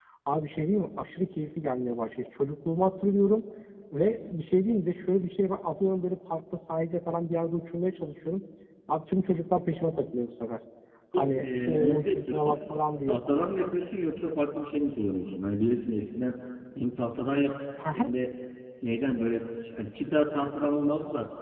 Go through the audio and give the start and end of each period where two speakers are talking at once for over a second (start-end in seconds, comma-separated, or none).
11.2-12.5